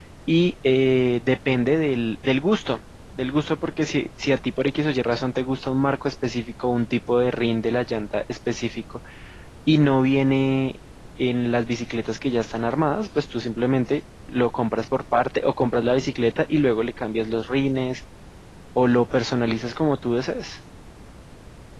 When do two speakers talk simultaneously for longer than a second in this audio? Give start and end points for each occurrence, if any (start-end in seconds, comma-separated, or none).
none